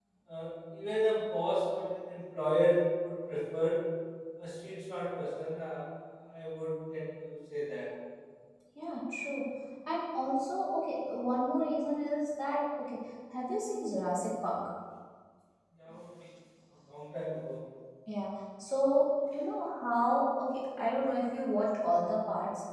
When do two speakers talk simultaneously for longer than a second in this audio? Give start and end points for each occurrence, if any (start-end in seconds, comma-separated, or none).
none